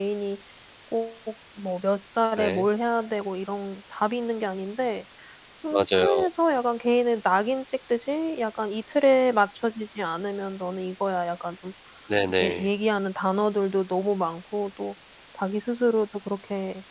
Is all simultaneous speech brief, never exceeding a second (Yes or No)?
Yes